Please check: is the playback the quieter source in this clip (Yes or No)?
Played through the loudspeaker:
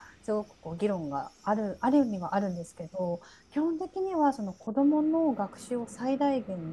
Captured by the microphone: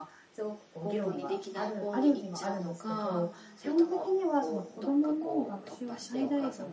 No